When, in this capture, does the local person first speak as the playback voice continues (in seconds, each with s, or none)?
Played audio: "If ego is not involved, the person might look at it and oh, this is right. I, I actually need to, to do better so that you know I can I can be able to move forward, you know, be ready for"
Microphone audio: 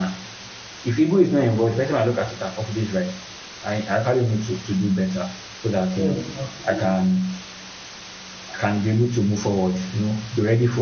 6.0 s